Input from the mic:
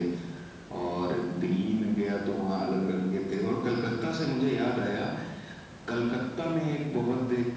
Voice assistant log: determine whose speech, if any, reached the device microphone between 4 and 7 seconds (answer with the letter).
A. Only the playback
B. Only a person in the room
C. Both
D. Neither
A